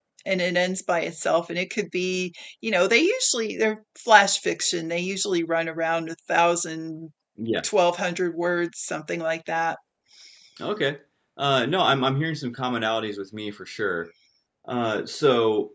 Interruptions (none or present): none